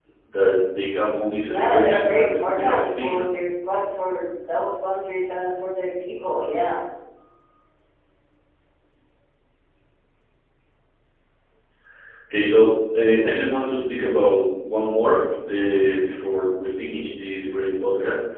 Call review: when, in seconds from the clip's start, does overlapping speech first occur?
1.5 s

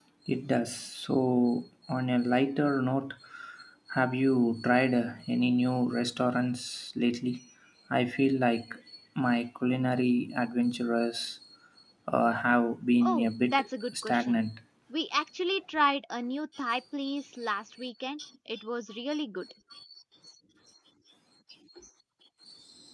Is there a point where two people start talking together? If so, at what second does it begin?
13.0 s

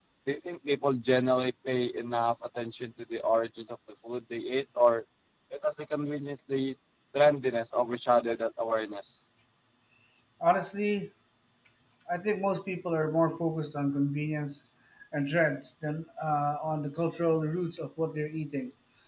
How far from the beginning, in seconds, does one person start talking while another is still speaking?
none

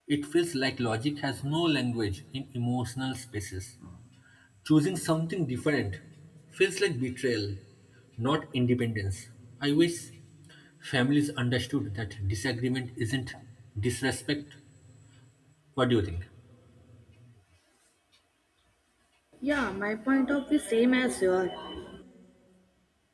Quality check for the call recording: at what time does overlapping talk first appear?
none

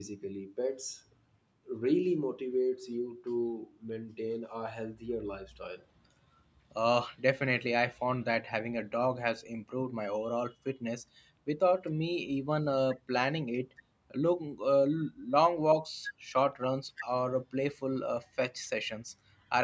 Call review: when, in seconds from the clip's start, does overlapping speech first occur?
none

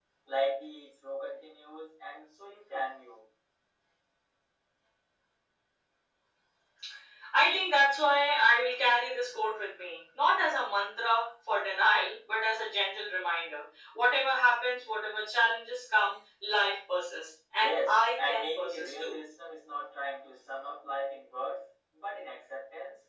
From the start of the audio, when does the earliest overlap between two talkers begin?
17.5 s

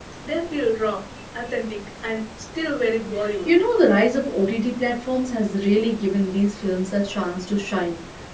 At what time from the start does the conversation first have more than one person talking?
none

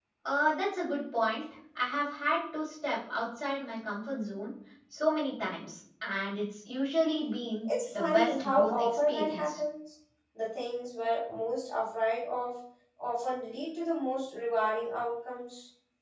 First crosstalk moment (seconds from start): 7.7 s

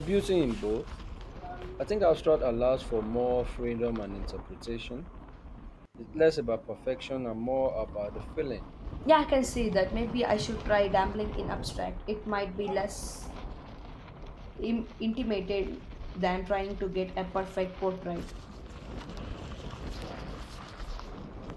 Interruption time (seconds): none

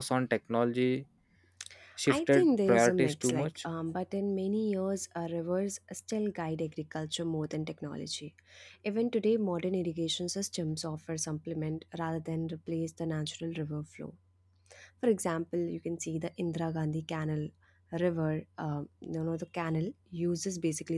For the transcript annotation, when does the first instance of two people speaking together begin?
2.1 s

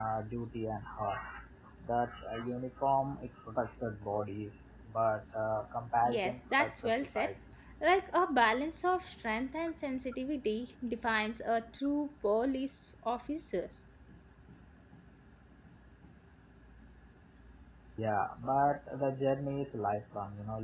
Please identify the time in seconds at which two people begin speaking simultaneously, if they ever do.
6.0 s

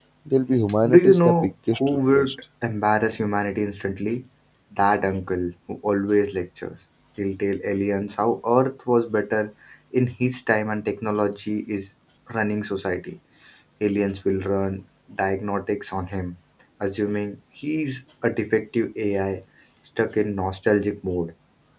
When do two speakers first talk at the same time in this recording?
0.9 s

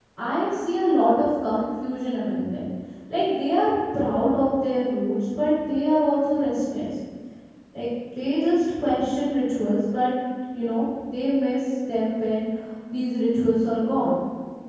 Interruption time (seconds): none

